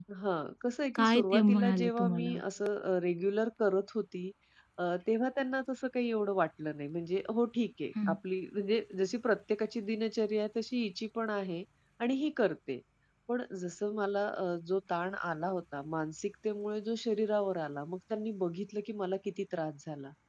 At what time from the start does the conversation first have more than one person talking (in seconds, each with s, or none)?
1.0 s